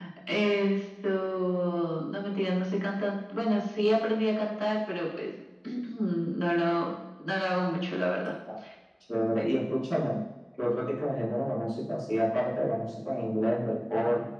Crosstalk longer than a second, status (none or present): none